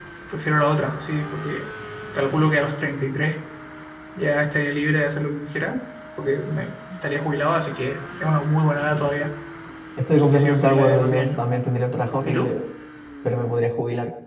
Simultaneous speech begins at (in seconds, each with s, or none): 10.2 s